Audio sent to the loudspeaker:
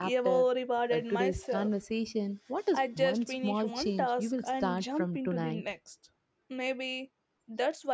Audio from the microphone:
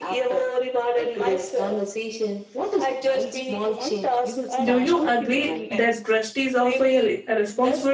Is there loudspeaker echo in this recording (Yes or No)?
Yes